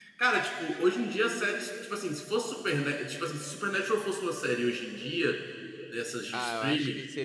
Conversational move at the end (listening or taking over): taking over